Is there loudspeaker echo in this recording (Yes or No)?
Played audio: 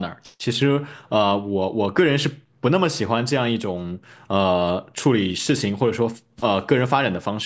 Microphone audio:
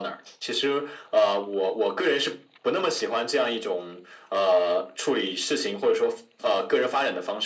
Yes